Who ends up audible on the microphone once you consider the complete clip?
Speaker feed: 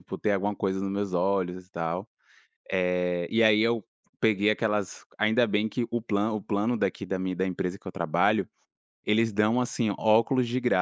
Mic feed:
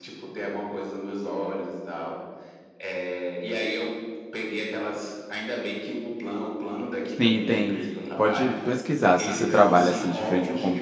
both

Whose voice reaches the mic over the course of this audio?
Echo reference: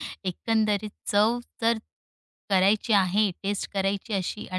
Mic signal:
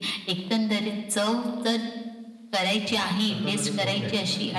both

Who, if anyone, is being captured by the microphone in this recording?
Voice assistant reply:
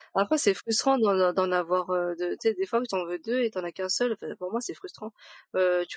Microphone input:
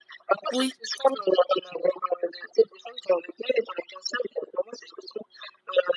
both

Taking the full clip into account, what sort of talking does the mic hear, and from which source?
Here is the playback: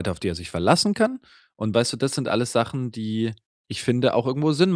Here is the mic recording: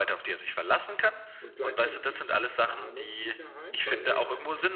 both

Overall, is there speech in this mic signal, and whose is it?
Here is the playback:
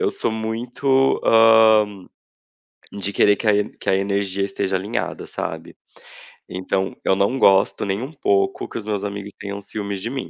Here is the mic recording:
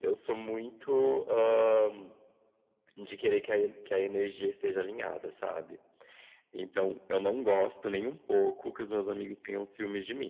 echo only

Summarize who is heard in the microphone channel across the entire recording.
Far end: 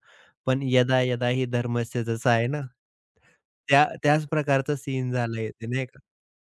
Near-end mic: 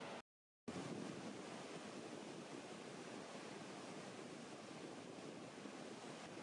neither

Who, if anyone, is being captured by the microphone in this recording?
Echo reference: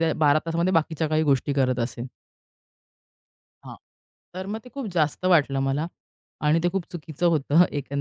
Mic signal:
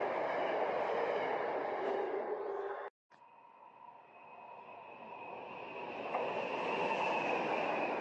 neither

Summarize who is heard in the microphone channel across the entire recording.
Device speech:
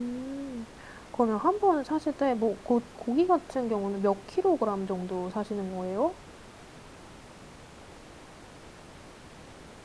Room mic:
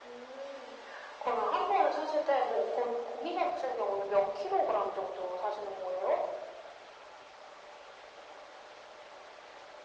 echo only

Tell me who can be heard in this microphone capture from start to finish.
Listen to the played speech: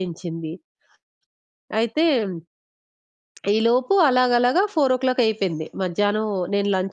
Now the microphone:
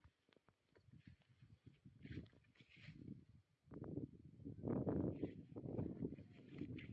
neither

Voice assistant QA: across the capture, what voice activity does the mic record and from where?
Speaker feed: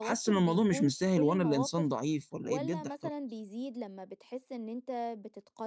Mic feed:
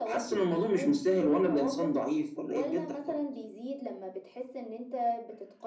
echo only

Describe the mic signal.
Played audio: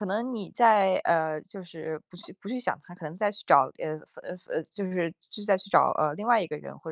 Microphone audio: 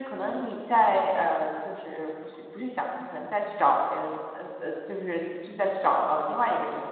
echo only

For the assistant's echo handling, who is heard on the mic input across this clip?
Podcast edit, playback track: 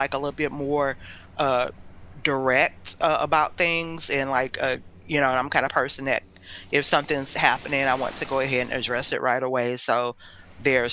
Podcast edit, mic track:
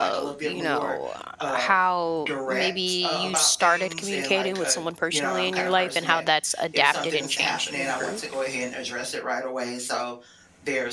both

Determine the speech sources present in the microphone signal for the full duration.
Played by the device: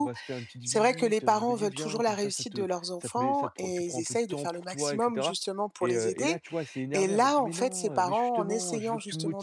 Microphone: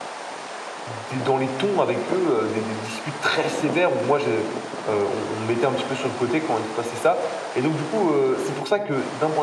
user only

